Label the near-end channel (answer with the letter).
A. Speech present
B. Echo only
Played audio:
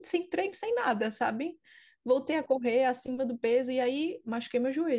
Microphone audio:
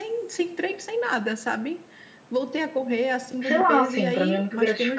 A